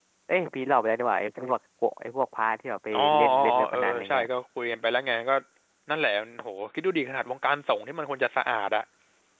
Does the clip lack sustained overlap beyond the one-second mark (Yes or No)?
No